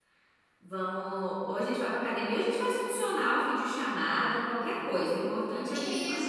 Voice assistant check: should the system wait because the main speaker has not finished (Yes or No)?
No